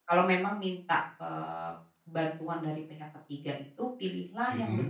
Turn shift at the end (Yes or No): No